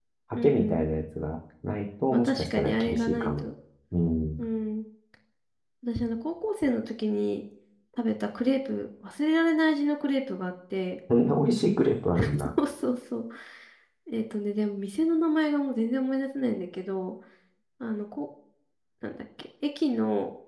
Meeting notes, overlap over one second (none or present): present